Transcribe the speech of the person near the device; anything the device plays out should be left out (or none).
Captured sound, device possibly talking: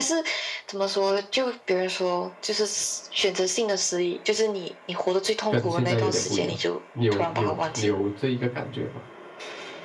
跟现在有点不一样？你有有你有这一个感觉吗？